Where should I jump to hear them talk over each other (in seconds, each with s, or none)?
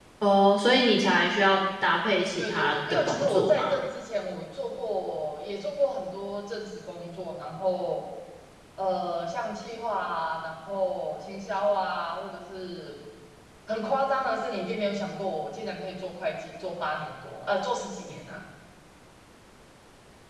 2.4 s